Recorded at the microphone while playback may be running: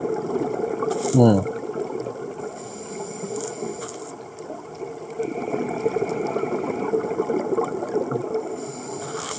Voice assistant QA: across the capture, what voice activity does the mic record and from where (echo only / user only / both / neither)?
user only